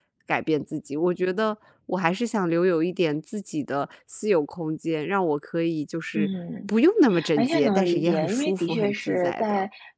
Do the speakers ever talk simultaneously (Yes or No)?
Yes